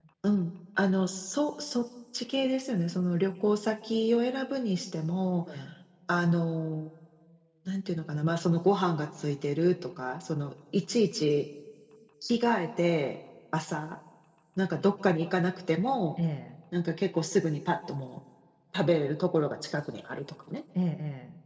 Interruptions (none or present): none